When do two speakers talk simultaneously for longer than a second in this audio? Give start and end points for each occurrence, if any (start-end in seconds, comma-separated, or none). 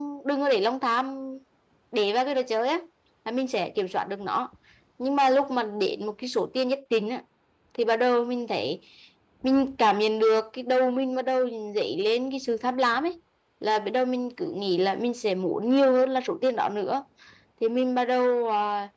none